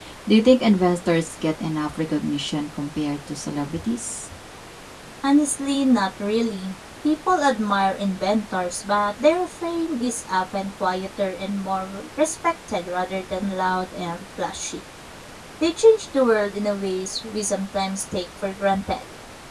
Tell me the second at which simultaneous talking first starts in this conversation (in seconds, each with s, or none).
none